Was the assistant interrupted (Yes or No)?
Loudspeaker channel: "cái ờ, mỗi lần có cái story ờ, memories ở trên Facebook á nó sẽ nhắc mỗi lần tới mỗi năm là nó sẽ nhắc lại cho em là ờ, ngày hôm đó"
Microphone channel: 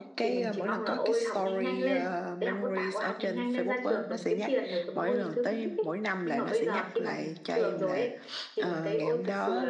Yes